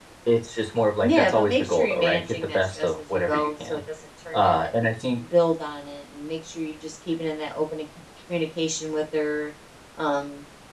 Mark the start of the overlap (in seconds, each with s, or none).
1.0 s